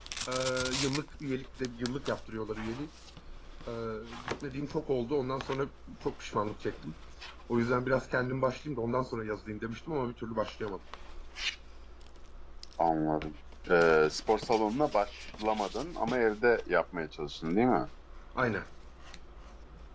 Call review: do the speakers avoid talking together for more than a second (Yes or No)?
Yes